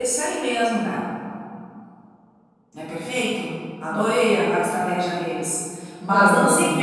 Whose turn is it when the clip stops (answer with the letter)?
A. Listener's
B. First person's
B